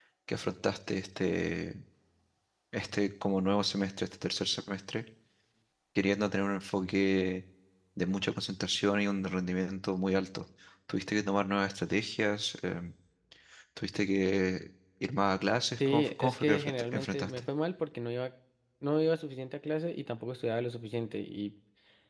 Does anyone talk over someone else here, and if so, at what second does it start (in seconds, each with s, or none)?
15.8 s